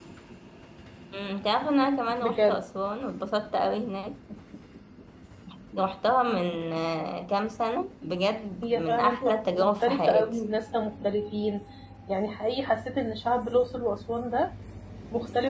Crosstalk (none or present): present